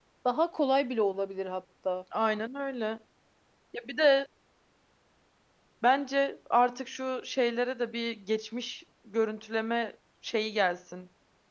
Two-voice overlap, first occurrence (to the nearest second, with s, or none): none